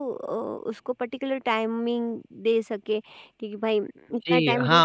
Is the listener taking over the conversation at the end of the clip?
Yes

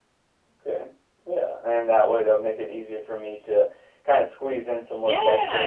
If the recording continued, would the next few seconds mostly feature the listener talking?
Yes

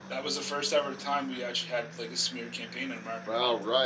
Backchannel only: No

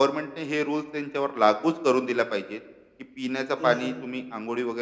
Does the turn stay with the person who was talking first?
Yes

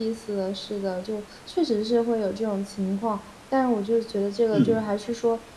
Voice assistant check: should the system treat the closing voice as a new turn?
No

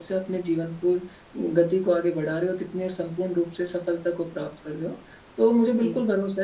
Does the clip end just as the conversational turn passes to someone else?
No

